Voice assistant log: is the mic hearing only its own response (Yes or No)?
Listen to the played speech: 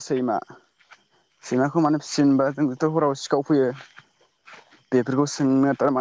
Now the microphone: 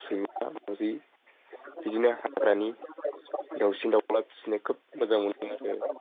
No